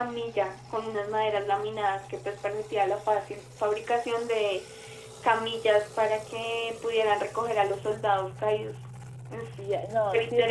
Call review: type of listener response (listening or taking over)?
taking over